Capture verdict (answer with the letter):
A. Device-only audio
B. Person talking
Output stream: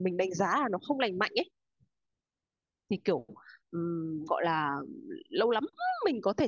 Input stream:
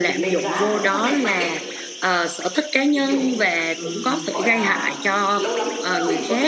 B